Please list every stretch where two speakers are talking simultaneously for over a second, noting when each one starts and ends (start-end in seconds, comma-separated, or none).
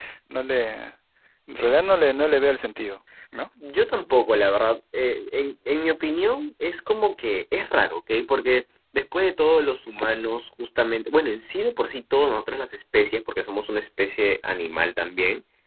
none